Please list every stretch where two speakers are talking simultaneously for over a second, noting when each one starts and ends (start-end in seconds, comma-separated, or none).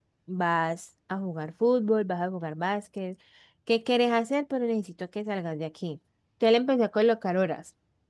none